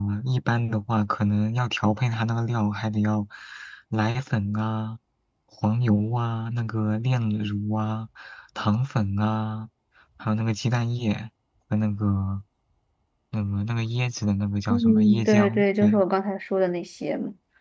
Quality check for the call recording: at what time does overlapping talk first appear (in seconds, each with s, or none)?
14.7 s